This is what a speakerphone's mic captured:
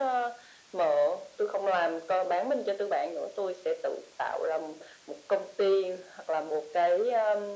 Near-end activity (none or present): none